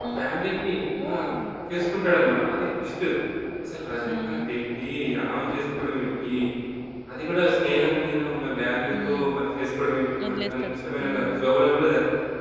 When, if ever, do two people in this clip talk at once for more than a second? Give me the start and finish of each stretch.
10.2-11.4

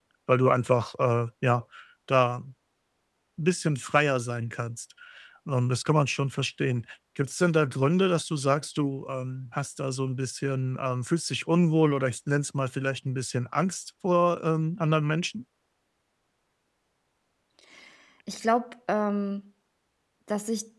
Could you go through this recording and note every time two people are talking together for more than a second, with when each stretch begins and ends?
none

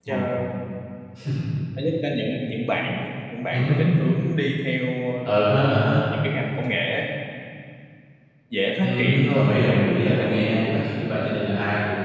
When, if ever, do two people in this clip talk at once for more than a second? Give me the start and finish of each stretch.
8.8-10.8

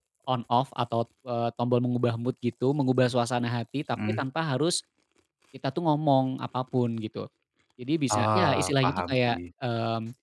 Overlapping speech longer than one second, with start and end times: 8.1-9.4

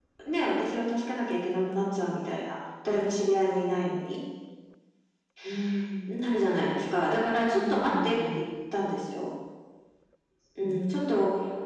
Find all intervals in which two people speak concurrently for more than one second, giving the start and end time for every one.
7.1-8.4

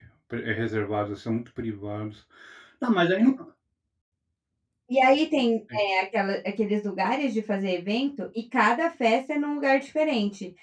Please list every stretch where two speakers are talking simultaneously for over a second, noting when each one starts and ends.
none

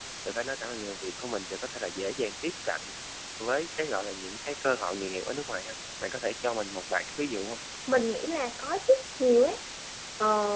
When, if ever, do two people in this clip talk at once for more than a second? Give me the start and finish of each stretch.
none

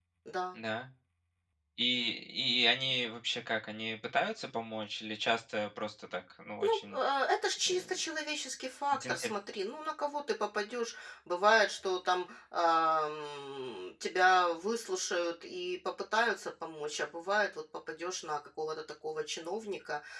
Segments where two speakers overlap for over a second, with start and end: none

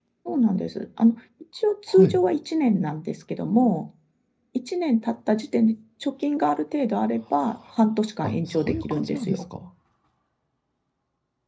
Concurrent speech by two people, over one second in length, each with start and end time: 8.2-9.4

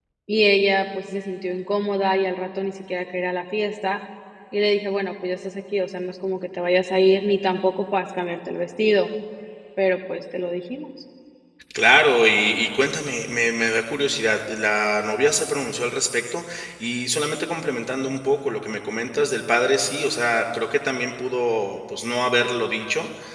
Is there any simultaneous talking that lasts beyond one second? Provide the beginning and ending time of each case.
none

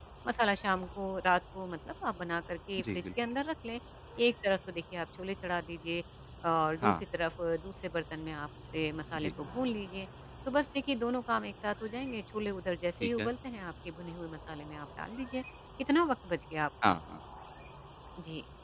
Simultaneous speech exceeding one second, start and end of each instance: none

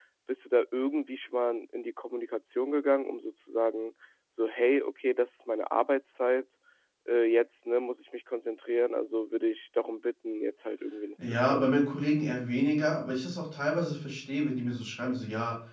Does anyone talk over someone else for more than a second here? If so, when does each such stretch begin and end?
none

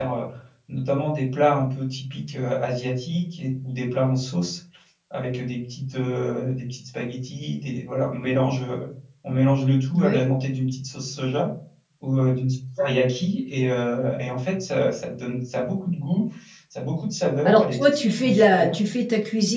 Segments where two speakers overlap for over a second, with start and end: 17.4-18.7

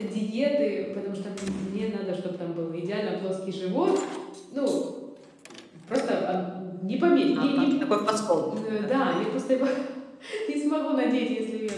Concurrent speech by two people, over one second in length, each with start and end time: 7.4-8.9

